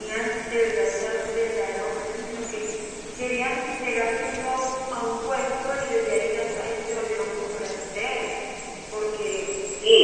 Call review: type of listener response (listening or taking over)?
taking over